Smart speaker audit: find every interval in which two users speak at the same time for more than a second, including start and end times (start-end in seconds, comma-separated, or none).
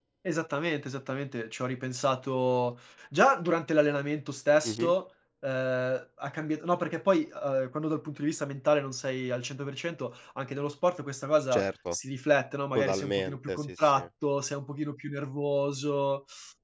12.8-14.1